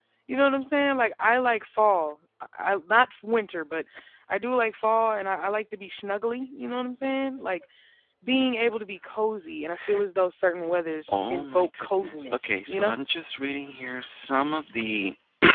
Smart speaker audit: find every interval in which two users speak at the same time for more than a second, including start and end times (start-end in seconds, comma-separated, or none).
11.1-12.9